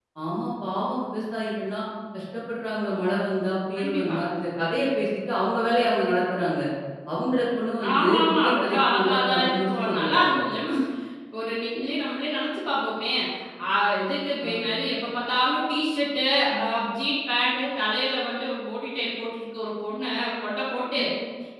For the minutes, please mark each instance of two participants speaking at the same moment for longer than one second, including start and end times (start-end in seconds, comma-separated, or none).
7.9-10.4